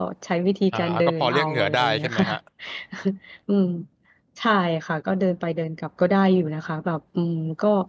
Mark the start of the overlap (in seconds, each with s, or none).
0.7 s